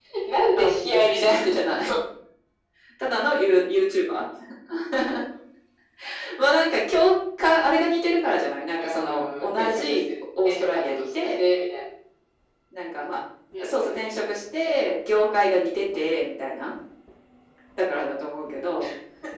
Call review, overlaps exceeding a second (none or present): present